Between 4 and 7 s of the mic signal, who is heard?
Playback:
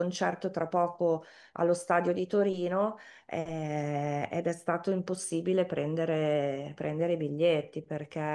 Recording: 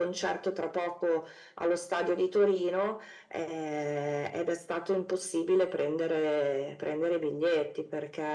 echo only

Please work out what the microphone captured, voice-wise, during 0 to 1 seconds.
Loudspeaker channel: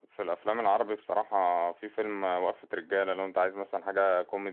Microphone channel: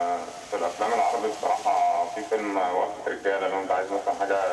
echo only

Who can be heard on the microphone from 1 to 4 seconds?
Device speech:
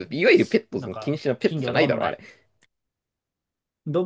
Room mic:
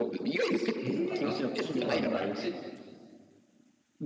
both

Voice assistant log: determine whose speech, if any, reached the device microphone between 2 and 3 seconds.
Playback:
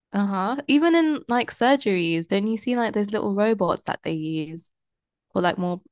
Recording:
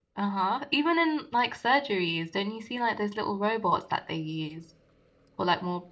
echo only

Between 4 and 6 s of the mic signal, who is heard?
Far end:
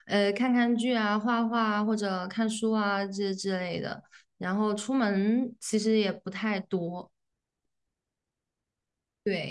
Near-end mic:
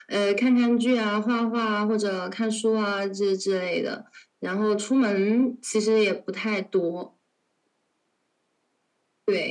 echo only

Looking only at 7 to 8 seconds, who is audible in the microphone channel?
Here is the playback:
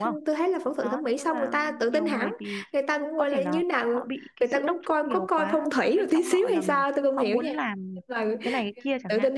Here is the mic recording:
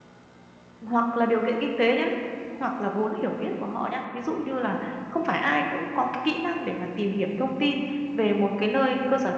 user only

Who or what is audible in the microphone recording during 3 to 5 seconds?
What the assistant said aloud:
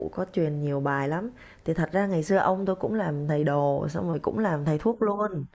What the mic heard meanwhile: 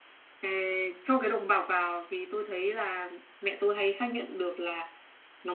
user only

